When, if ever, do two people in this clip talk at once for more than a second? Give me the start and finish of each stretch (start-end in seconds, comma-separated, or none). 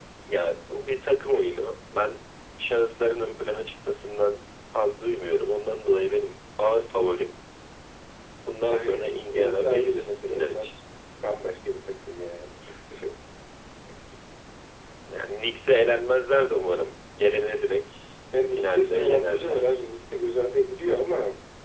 8.6-10.7, 18.5-19.8